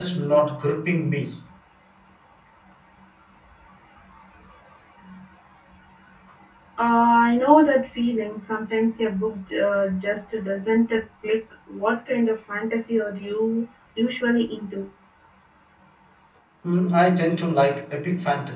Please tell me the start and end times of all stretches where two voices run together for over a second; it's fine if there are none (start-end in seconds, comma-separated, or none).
none